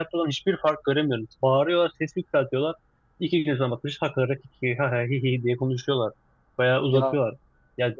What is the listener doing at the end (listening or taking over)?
listening